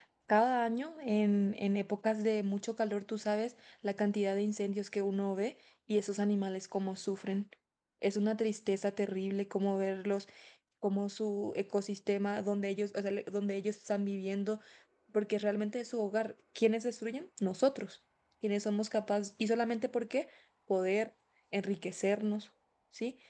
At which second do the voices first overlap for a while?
none

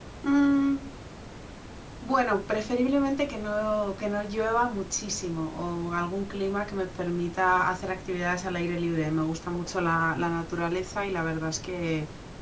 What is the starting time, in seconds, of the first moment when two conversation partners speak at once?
none

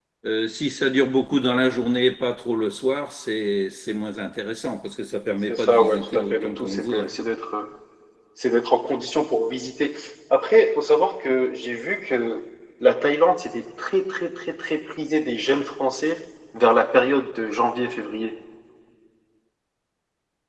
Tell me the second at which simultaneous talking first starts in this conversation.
5.5 s

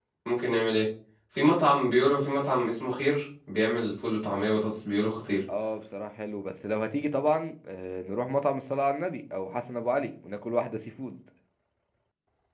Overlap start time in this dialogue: none

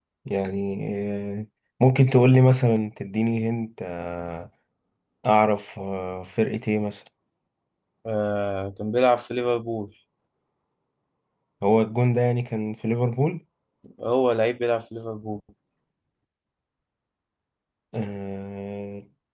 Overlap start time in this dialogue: none

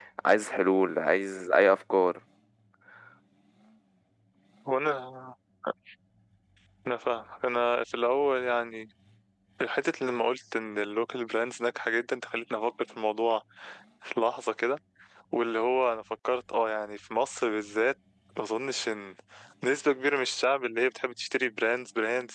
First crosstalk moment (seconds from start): none

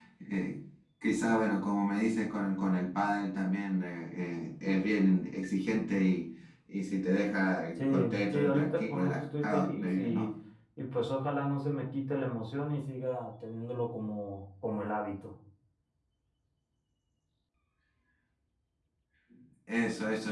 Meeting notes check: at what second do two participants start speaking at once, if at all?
7.8 s

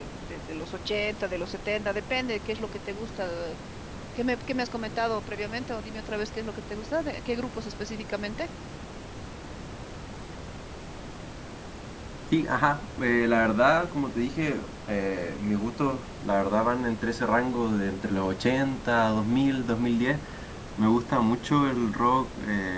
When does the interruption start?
none

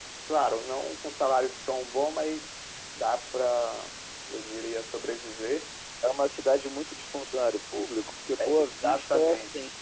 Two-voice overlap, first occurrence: 8.4 s

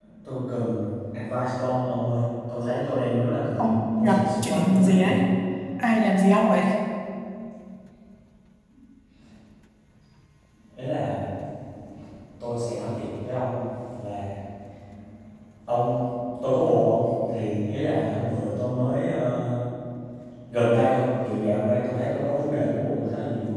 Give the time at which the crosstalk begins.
3.6 s

